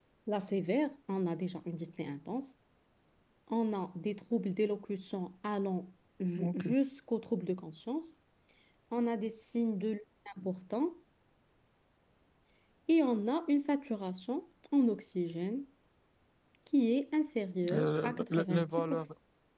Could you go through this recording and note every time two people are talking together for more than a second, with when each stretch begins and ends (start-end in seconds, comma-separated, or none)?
17.7-19.1